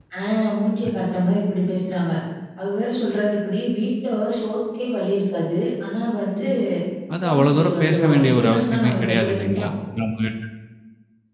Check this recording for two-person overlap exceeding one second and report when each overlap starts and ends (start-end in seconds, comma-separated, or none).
7.2-9.7